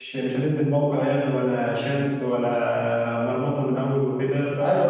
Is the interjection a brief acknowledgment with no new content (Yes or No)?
No